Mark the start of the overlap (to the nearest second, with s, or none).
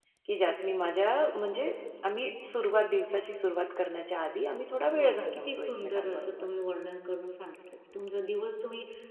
5 s